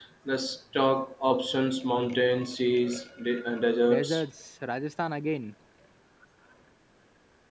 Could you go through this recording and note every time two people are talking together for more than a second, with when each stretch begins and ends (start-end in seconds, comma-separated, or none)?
none